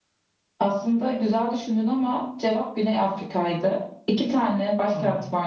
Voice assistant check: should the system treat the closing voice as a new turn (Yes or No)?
No